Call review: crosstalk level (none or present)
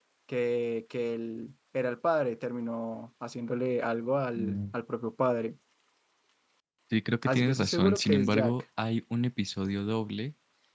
present